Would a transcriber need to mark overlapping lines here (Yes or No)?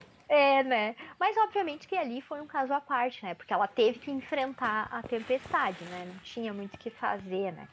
No